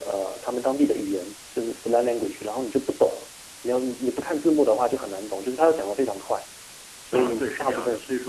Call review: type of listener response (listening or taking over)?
taking over